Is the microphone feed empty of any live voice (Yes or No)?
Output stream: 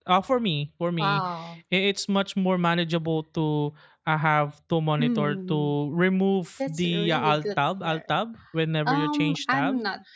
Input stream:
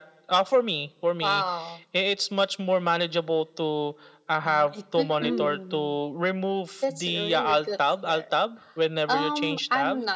No